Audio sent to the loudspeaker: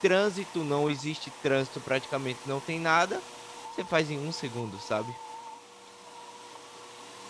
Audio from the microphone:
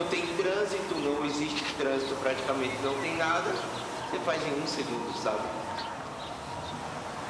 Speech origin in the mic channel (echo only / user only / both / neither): echo only